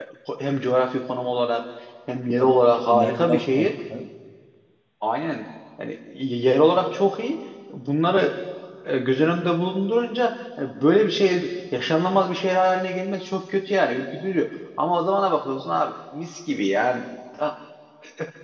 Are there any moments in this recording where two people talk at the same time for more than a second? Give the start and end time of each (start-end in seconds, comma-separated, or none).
2.4-3.7